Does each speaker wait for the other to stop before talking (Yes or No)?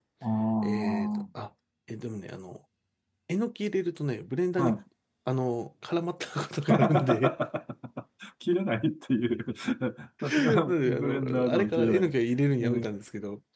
No